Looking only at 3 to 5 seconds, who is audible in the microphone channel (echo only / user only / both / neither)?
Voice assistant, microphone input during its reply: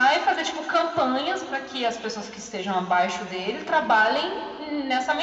echo only